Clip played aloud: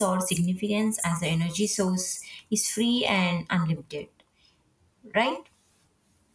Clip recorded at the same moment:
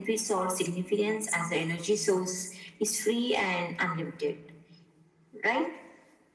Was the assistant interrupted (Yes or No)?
No